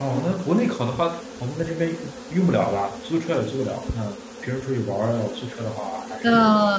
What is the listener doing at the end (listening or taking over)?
taking over